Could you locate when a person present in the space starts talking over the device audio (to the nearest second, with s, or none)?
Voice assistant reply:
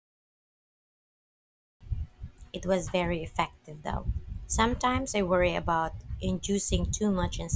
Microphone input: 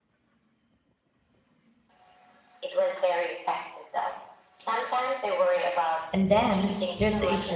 6 s